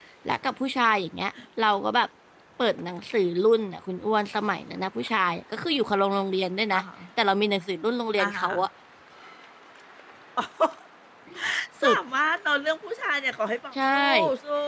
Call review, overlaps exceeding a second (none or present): none